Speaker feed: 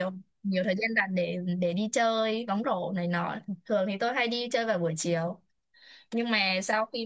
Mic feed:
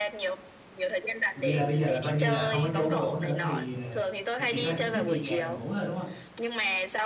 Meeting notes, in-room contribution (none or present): present